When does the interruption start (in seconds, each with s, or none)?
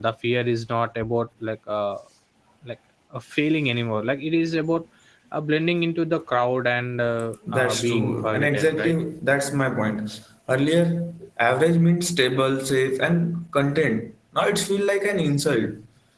7.5 s